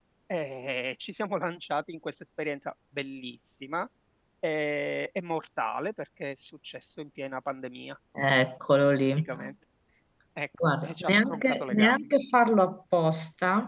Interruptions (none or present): present